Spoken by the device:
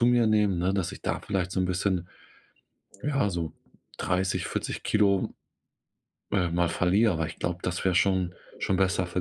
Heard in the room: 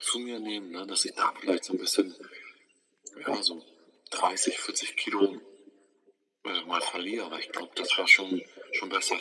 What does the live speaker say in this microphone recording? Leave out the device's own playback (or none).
none